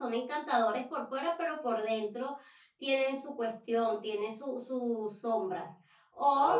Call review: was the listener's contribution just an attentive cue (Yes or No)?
Yes